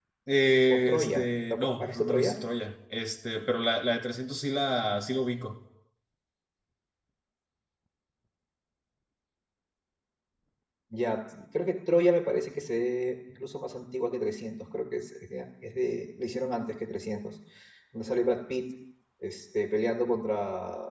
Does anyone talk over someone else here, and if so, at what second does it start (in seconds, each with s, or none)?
0.7 s